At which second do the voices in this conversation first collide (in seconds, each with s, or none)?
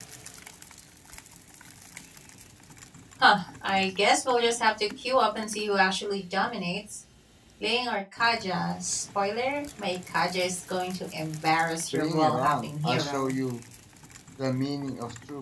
11.9 s